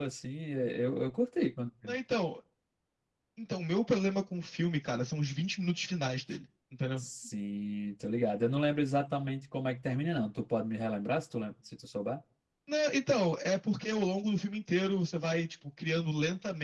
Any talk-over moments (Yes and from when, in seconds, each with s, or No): No